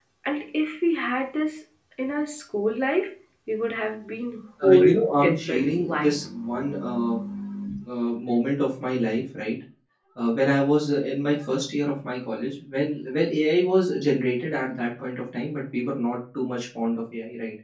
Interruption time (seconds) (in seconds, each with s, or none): 4.6 s